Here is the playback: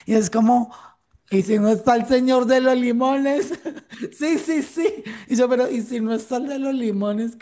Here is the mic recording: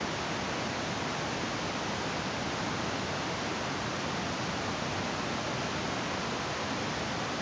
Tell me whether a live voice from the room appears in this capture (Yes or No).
No